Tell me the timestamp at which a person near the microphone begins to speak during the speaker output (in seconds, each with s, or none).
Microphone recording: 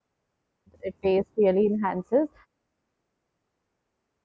0.8 s